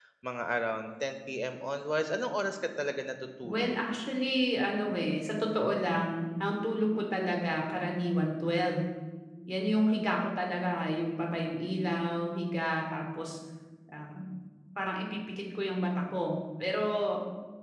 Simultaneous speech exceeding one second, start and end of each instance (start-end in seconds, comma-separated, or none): none